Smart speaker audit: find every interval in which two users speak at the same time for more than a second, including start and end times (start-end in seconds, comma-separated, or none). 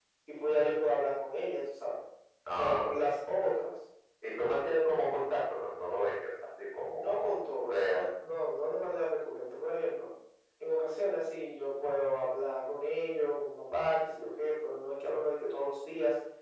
6.9-8.1